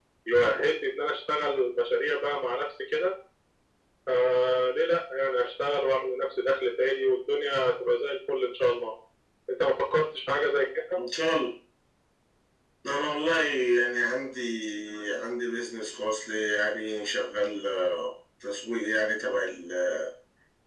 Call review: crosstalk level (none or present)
none